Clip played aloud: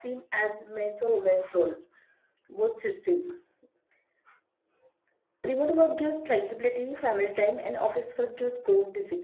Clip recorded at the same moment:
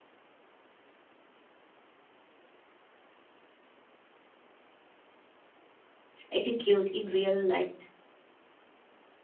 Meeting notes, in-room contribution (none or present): present